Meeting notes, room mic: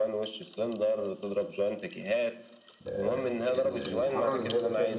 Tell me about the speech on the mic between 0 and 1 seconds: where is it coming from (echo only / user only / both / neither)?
echo only